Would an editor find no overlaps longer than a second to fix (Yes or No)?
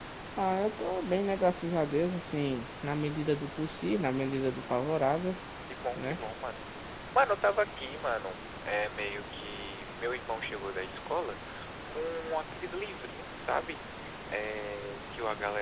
Yes